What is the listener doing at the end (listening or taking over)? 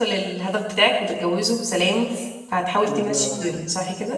taking over